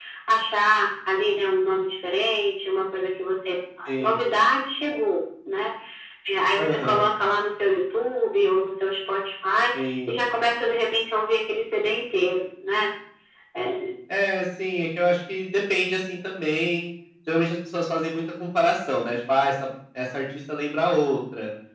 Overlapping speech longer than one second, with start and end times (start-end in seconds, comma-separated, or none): none